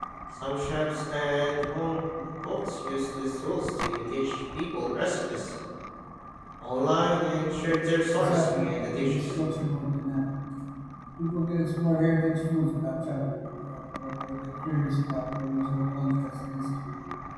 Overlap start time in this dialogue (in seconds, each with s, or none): 8.1 s